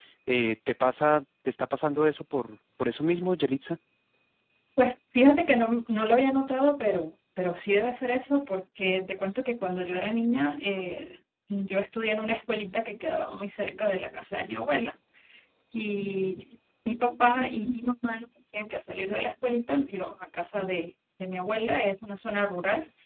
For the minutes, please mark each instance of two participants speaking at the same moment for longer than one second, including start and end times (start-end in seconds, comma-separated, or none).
none